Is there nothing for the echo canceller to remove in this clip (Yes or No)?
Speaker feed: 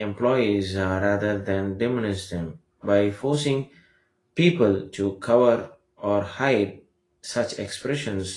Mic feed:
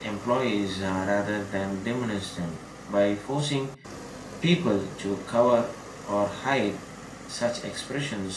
No